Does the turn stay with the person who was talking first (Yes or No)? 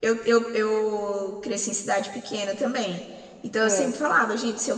Yes